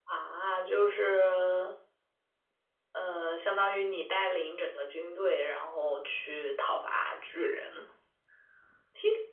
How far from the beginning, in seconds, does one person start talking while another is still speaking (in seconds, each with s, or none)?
none